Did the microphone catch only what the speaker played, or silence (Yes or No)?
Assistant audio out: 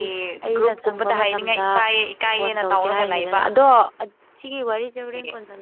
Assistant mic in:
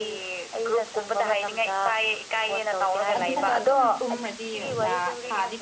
No